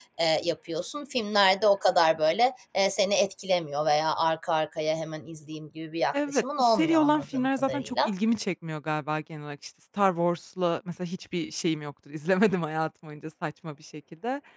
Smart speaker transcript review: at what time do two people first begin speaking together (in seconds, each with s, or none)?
6.1 s